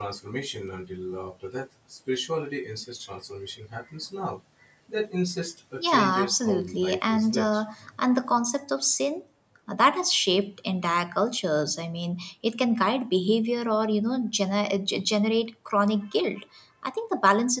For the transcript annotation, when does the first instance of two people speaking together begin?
6 s

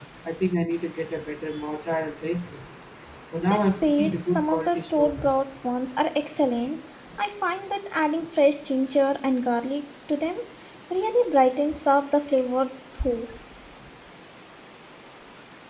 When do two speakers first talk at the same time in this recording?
3 s

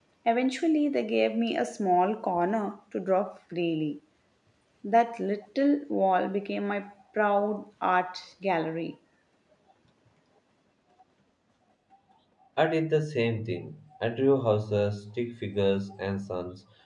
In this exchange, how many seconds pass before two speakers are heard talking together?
none

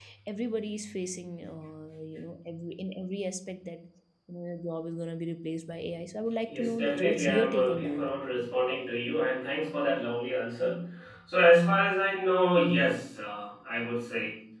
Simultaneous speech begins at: 6 s

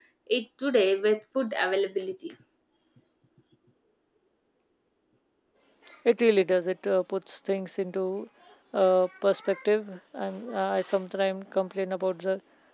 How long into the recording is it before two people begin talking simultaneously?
none

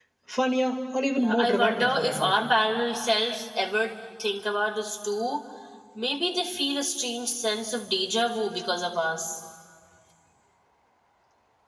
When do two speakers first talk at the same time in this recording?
1 s

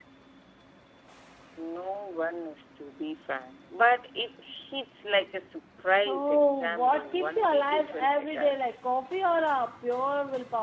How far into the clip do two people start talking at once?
6 s

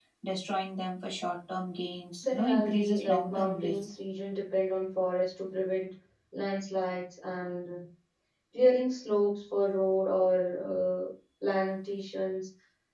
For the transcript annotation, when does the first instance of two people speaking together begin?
2 s

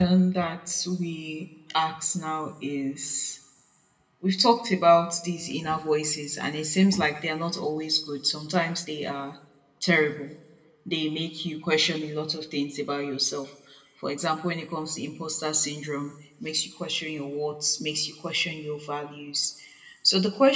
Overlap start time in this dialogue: none

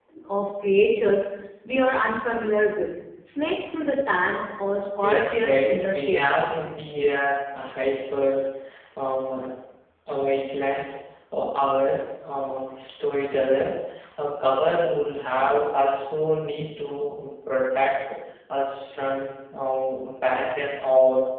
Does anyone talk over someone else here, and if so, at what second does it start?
5 s

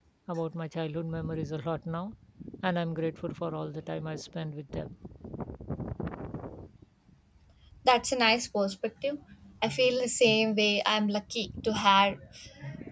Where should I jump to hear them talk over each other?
none

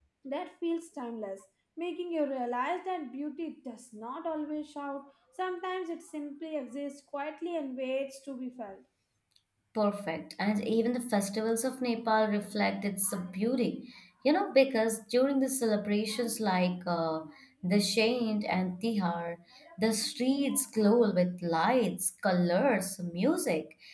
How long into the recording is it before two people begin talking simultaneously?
none

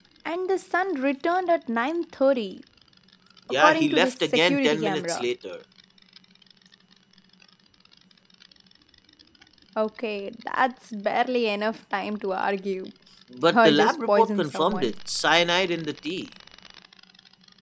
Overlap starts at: 4 s

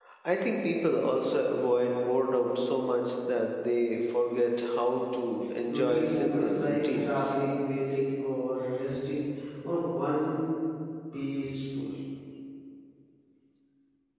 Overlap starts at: 6 s

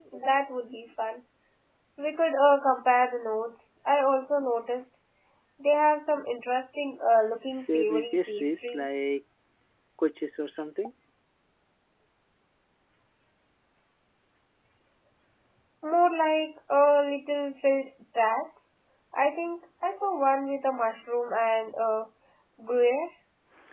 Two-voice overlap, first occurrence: 8 s

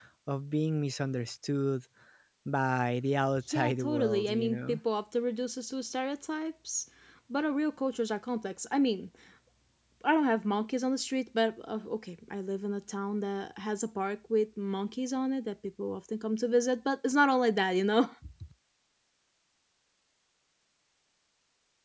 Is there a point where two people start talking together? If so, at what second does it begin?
4 s

